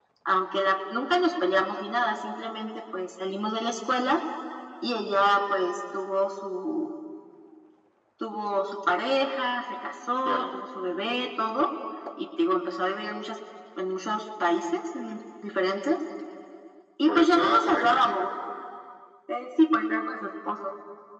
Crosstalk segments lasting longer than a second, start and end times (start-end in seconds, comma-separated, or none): 17.1-18.3